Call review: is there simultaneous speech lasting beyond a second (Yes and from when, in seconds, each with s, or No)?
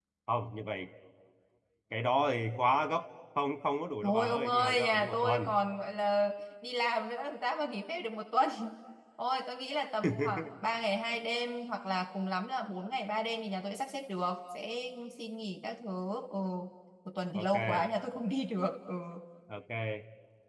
Yes, from 4.0 s